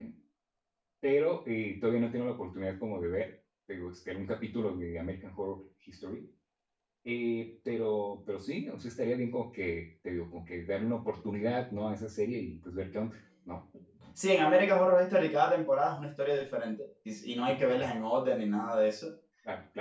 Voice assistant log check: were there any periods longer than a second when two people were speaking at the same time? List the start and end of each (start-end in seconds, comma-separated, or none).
none